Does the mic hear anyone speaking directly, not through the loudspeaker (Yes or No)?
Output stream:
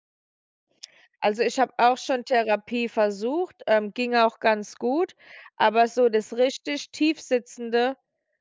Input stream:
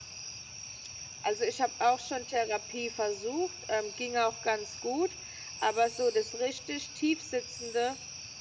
No